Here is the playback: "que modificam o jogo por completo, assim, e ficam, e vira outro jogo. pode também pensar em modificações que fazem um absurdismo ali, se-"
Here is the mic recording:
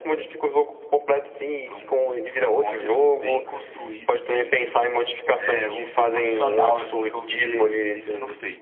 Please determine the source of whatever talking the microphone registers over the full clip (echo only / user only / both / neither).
both